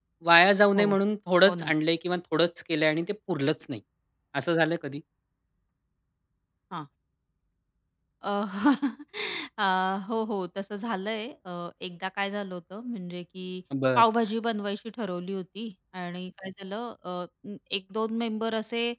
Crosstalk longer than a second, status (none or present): none